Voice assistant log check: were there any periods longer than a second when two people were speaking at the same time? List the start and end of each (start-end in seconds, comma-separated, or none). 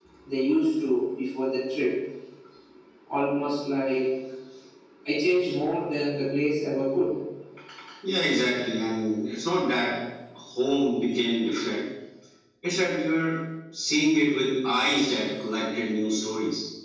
none